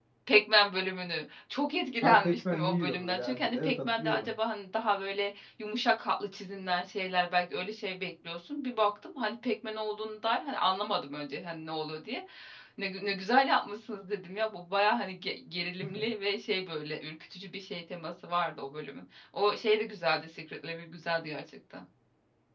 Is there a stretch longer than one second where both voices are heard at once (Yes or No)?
Yes